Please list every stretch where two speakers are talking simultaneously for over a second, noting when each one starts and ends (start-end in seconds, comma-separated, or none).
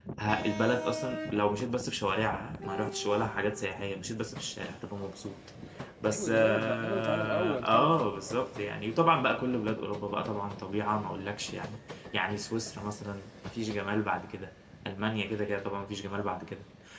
6.1-8.1